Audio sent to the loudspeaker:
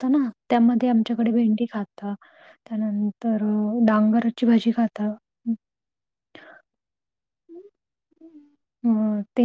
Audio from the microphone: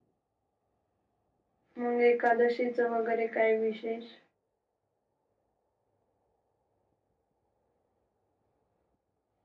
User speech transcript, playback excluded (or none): मग एकादशीचं वगैरे काय विशेष?